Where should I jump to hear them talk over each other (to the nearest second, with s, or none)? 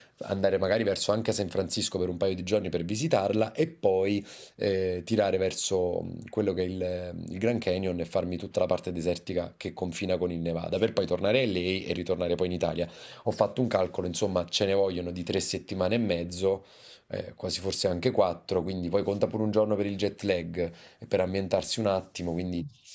none